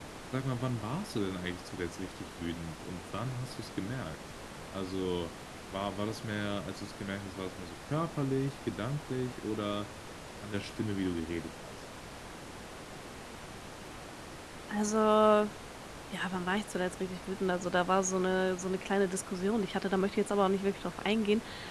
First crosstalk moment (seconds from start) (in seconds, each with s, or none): none